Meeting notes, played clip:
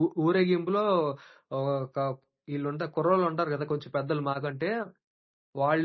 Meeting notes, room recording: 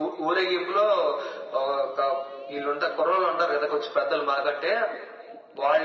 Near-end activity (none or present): none